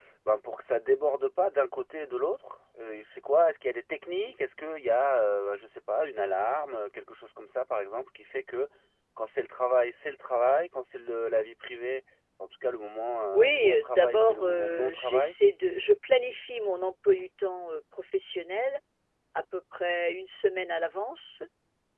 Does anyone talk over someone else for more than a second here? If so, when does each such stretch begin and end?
13.3-15.3

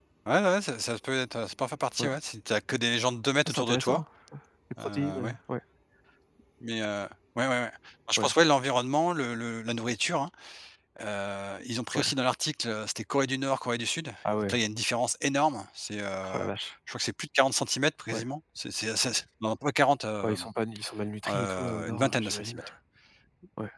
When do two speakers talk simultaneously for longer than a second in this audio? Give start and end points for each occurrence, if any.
21.3-22.6

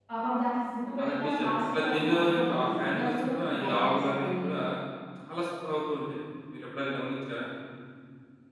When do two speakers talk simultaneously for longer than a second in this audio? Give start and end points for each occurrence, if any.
1.0-4.5

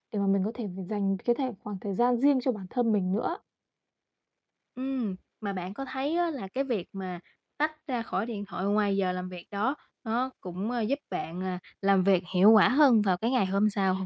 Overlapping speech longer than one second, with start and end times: none

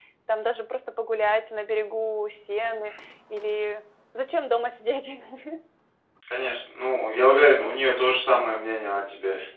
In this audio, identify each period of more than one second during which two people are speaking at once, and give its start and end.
none

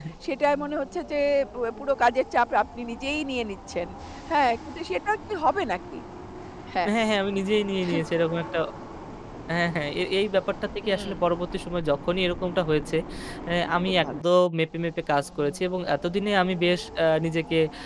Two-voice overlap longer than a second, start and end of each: none

